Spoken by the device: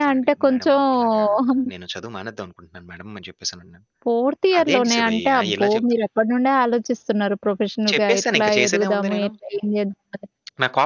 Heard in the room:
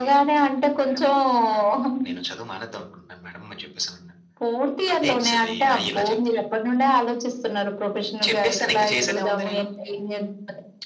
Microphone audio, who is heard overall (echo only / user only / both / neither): echo only